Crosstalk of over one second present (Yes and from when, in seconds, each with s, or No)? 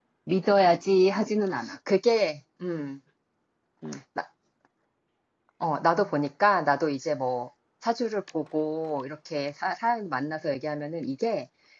No